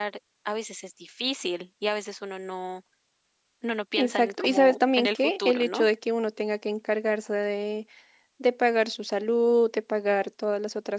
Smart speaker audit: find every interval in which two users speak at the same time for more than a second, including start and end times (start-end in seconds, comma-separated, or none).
4.0-5.9